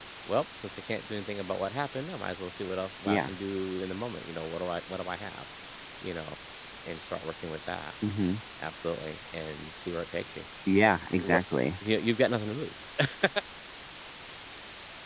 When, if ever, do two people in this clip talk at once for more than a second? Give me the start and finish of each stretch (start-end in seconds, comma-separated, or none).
none